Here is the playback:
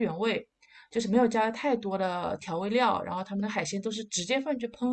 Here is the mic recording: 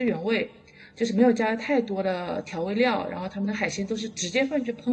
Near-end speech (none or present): none